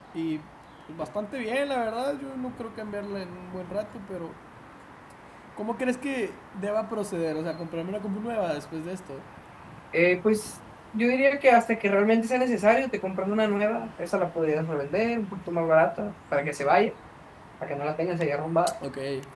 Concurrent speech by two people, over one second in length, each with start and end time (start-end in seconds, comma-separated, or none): none